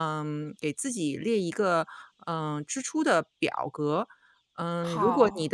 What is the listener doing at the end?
listening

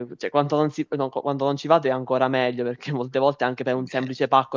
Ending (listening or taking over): listening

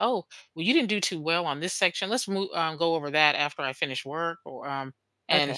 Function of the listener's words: listening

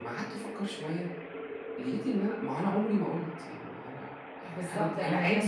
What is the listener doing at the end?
taking over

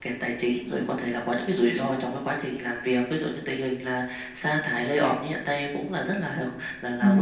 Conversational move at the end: taking over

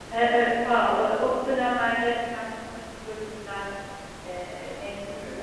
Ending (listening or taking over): taking over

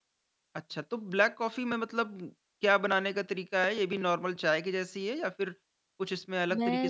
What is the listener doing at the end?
taking over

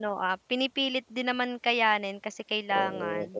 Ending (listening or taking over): taking over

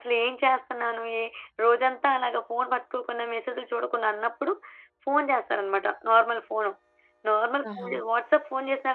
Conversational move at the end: listening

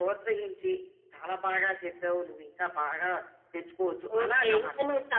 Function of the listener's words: taking over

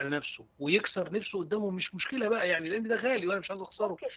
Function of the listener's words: taking over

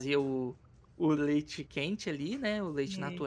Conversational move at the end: listening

